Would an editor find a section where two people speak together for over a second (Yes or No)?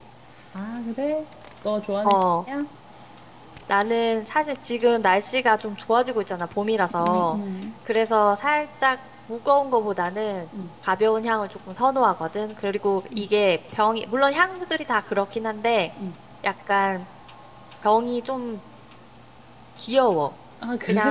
No